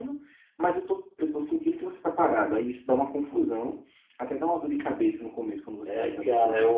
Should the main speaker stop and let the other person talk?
Yes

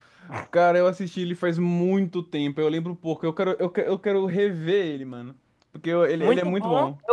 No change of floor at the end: No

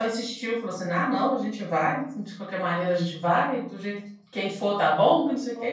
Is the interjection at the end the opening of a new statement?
Yes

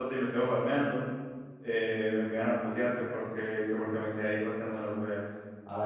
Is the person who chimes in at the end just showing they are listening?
No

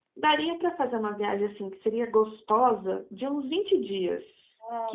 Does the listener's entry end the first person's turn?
Yes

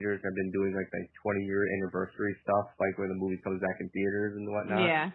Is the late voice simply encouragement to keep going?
Yes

